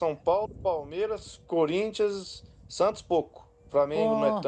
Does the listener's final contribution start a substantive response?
No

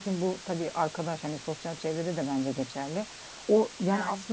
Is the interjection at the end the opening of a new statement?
No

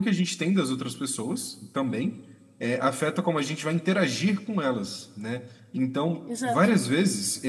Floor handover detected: No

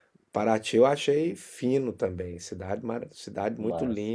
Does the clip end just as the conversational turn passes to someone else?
No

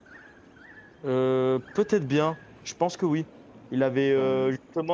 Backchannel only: Yes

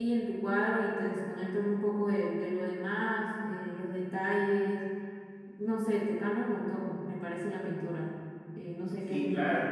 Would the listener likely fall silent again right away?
No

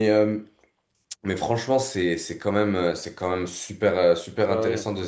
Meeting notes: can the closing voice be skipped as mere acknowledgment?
Yes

